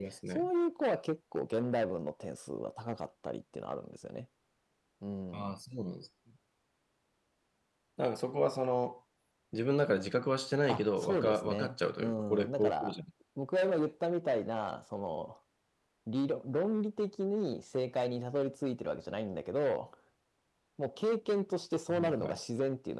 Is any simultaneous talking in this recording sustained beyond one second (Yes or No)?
Yes